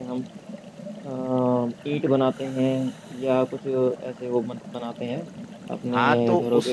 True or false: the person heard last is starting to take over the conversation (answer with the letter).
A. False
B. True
B